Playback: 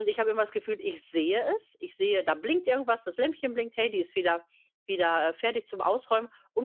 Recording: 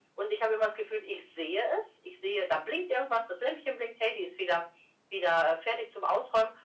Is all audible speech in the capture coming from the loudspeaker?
Yes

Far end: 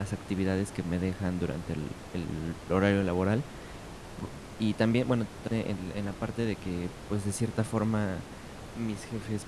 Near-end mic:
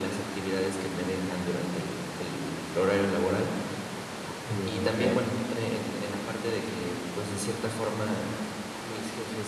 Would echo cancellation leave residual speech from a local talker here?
Yes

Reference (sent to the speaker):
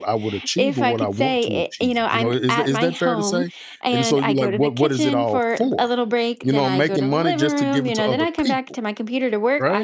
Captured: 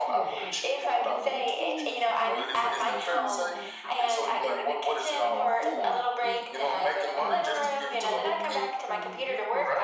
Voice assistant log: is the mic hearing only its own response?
No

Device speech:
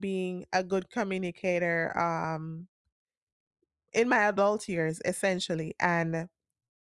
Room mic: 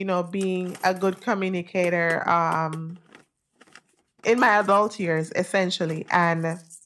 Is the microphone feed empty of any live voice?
Yes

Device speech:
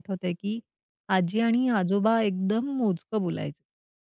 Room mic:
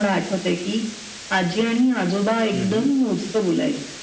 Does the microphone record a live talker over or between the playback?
Yes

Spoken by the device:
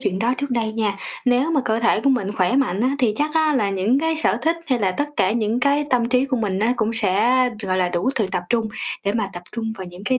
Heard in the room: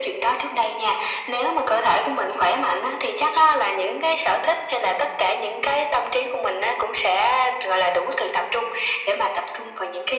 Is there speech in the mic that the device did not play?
No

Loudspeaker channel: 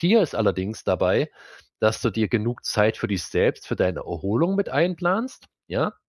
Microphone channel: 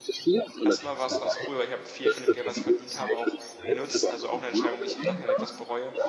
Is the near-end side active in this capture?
Yes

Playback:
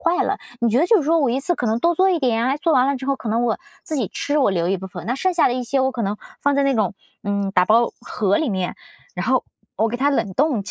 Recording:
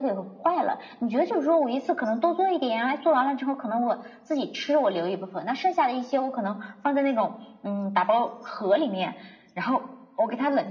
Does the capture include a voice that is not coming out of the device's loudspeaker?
No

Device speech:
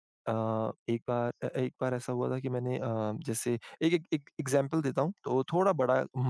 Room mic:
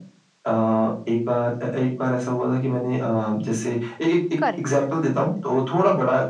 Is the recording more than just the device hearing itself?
Yes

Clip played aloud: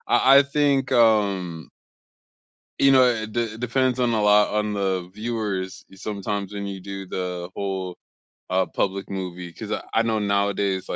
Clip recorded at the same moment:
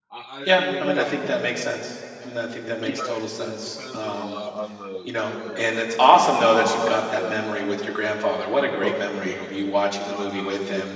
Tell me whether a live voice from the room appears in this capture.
Yes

